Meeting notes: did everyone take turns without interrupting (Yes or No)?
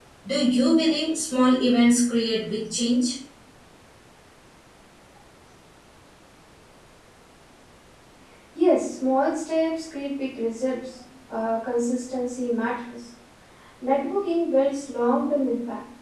Yes